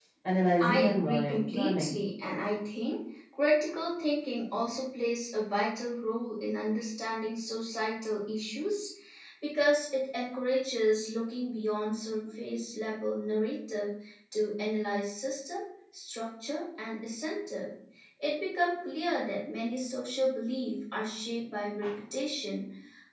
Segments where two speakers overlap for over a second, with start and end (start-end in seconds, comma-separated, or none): 0.6-2.0